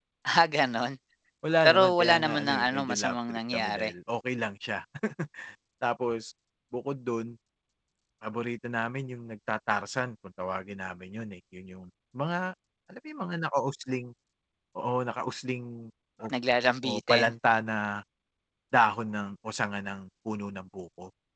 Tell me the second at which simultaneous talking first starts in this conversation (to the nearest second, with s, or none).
2 s